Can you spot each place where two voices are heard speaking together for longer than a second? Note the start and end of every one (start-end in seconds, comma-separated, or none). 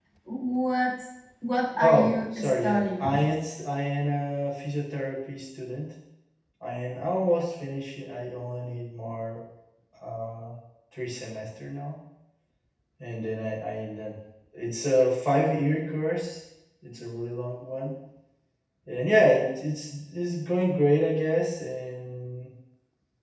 1.8-3.1